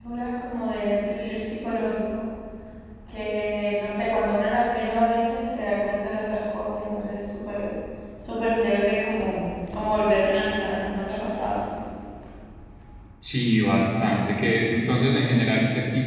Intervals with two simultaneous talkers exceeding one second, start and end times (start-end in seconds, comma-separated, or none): none